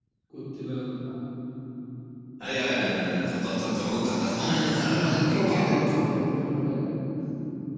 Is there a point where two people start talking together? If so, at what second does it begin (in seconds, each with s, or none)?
4.2 s